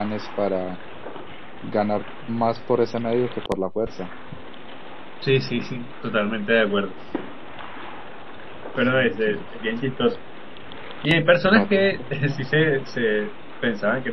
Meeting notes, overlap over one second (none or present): present